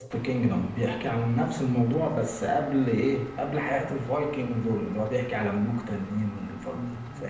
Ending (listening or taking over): taking over